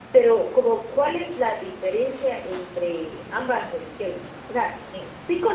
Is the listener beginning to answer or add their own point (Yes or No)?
No